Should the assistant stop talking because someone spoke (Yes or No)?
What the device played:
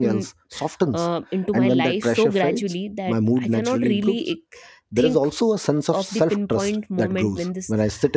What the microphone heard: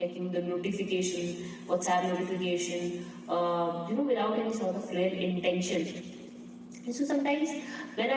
Yes